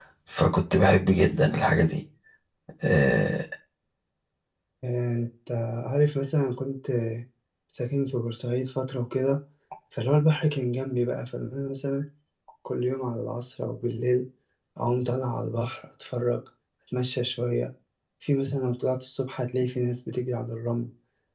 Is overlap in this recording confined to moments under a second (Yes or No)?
Yes